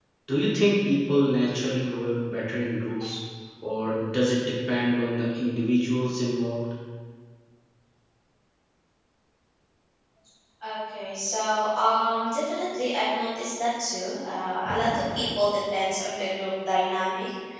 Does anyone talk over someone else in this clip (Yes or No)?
No